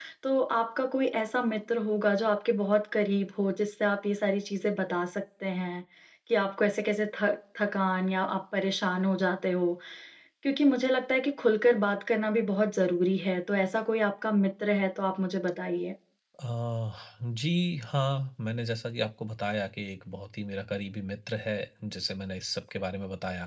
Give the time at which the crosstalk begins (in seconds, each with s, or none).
none